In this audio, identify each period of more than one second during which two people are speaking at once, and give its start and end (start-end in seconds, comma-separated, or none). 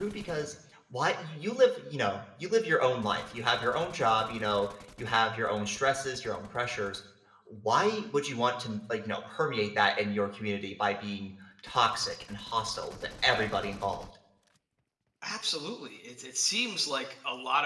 none